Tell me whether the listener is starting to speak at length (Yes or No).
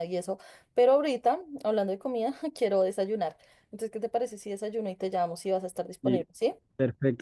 Yes